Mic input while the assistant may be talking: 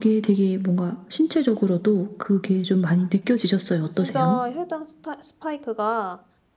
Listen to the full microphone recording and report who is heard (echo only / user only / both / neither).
both